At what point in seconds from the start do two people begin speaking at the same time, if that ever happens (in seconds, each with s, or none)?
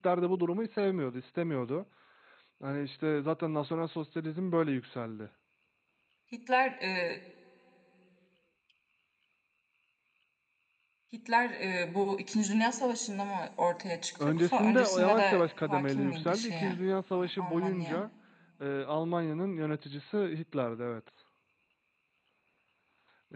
14.2 s